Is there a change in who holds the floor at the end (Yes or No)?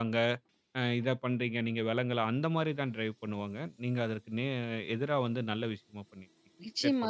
Yes